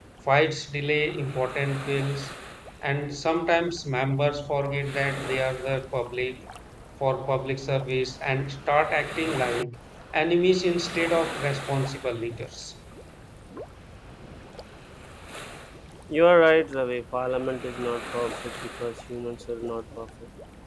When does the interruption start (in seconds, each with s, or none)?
none